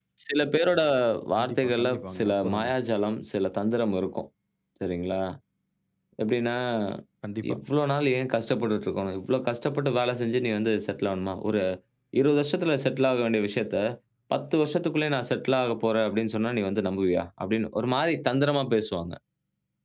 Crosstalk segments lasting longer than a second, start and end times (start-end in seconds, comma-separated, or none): 1.4-2.7